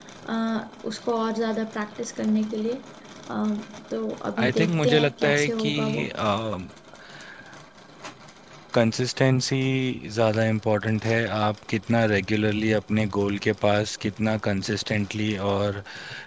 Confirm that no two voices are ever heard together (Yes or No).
No